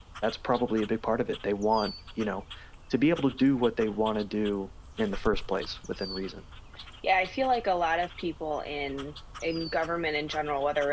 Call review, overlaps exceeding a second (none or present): none